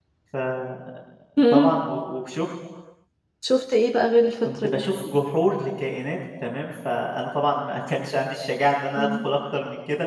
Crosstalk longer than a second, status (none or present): none